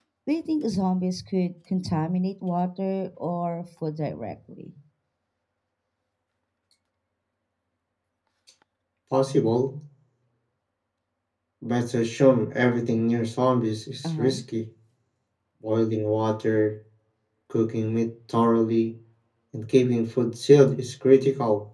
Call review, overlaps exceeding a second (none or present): none